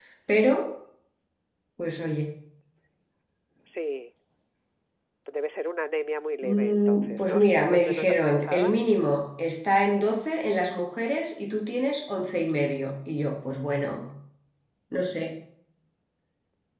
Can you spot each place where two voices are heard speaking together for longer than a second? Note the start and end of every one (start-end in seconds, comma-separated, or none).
6.4-8.8